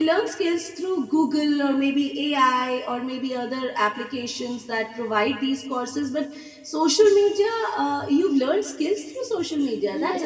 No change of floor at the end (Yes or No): No